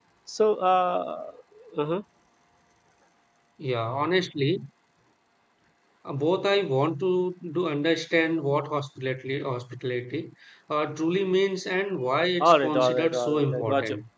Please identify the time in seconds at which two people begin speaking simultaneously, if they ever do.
12.4 s

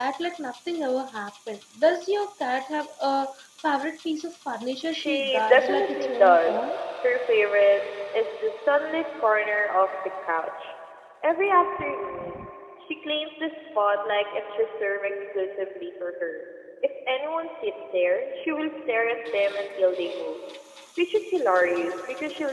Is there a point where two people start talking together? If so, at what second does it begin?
4.9 s

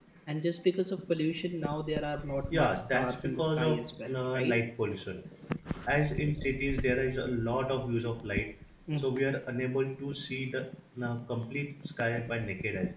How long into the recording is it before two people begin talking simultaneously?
2.5 s

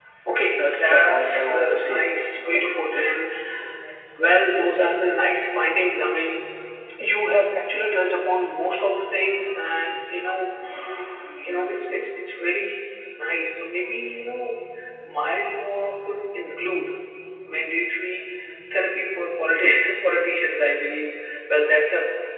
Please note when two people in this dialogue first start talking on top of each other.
0.5 s

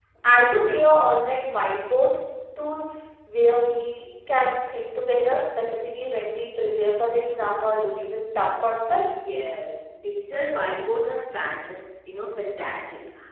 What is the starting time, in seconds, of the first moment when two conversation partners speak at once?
none

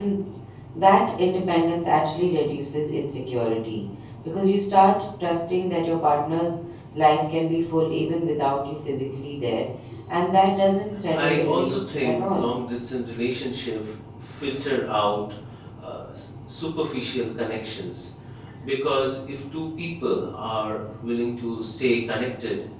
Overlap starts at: 11.1 s

